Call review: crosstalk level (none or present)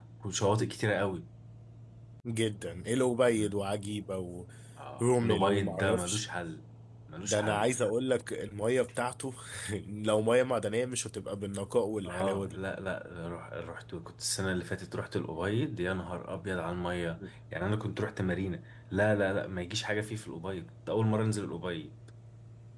present